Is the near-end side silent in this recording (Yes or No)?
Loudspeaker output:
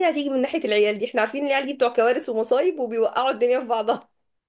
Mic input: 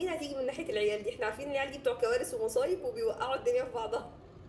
Yes